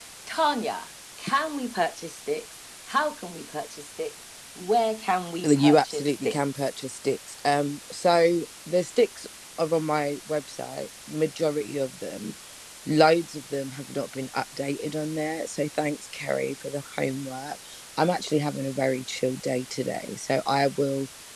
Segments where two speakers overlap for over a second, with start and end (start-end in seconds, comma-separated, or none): 5.4-6.7